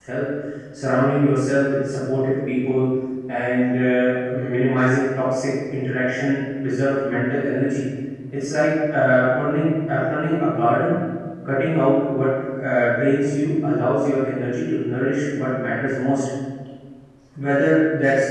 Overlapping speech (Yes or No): No